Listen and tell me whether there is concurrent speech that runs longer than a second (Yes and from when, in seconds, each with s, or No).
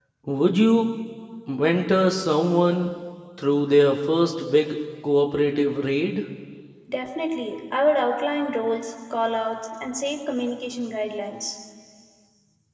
No